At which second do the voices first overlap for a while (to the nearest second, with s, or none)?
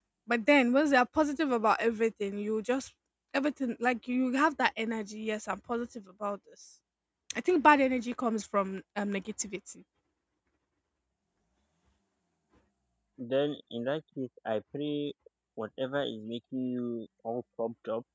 none